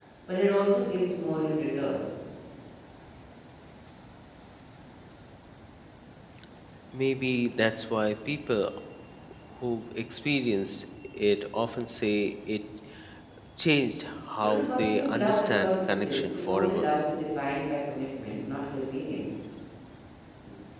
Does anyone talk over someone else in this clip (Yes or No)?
Yes